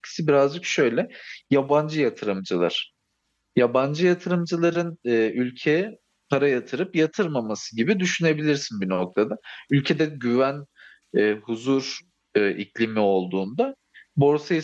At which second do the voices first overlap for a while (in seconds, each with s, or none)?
none